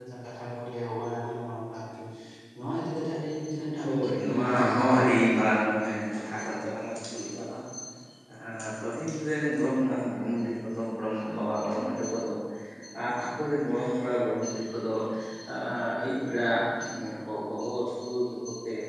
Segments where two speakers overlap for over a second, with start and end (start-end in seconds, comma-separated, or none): 3.8-5.2